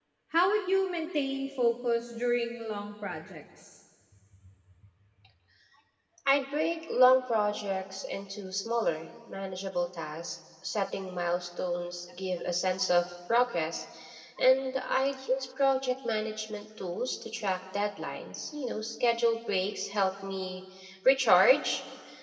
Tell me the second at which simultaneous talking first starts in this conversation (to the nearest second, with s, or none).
none